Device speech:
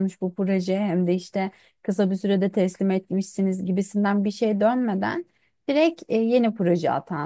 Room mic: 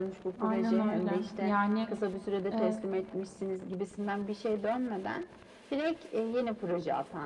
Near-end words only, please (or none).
aynen öyle. Yani e,